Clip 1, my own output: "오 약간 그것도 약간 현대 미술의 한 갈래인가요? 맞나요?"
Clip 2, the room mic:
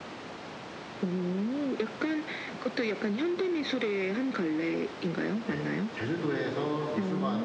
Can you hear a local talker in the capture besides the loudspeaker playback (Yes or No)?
Yes